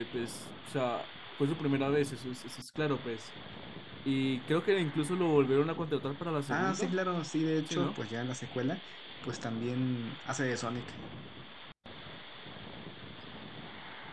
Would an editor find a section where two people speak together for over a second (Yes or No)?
No